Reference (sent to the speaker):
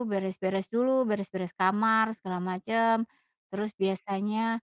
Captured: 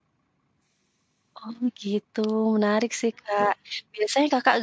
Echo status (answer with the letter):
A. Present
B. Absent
B